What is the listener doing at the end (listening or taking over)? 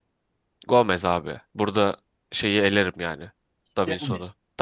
listening